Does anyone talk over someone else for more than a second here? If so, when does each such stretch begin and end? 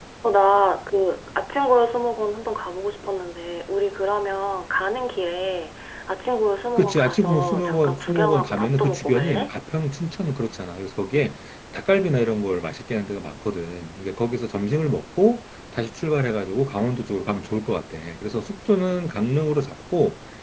6.8-9.5

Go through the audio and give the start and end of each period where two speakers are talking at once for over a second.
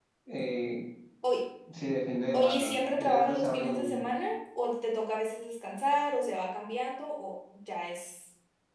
2.3-4.0

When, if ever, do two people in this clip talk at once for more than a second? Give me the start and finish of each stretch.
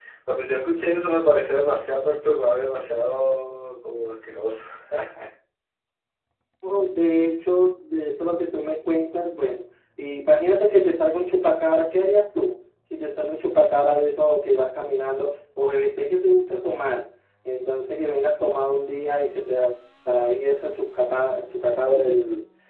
none

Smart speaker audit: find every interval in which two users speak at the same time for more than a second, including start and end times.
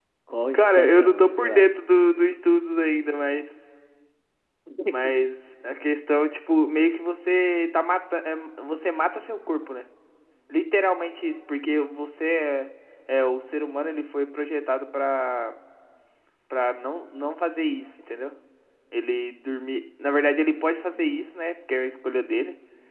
0.5-1.8

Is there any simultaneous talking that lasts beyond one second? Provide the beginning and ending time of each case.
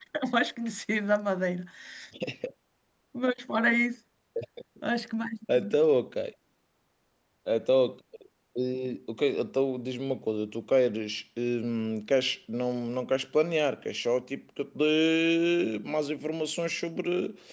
none

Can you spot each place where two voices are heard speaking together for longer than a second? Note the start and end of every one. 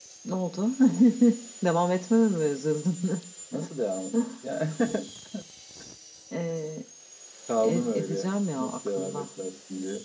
7.6-9.3

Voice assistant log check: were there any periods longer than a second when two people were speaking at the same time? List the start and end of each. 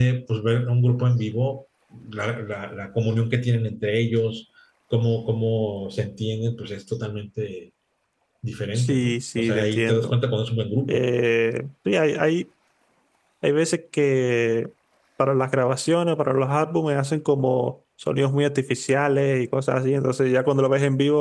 8.8-10.1

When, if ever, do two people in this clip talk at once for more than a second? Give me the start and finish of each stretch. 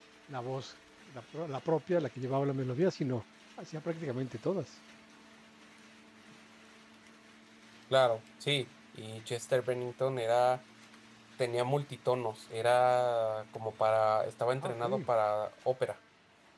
none

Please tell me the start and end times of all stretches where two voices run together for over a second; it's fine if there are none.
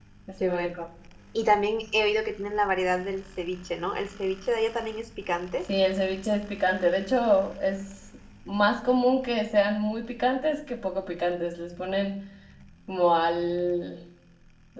none

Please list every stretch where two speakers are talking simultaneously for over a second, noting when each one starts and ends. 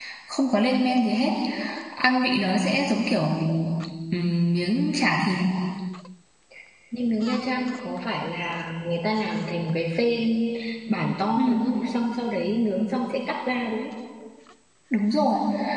none

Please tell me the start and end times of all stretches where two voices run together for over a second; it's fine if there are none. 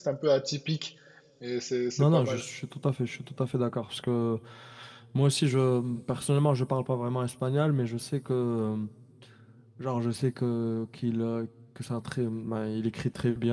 none

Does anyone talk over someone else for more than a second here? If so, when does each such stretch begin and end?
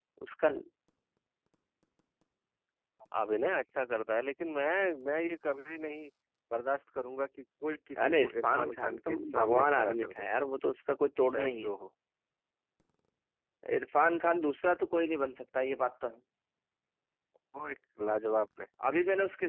8.0-10.3

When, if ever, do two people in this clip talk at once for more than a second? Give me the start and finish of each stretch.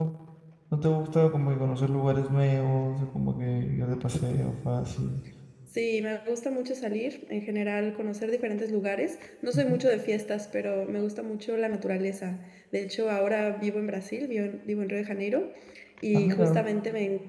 none

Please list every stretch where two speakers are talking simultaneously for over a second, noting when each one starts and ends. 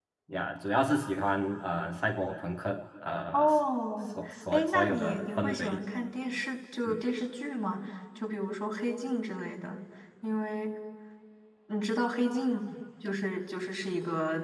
4.1-5.8

